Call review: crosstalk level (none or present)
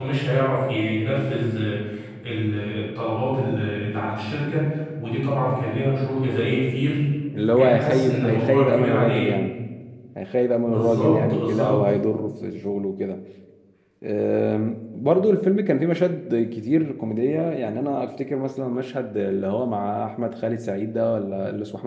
present